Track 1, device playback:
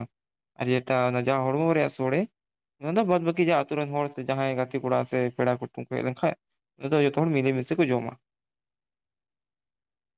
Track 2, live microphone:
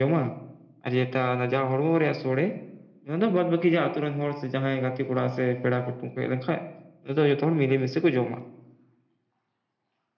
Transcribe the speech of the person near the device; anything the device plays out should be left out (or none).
none